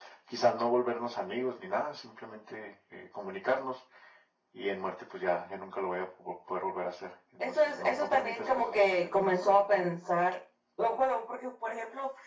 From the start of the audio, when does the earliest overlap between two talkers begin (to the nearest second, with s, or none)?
7 s